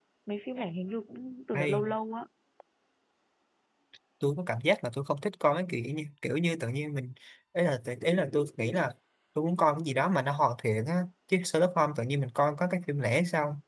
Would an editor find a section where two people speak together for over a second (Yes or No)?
No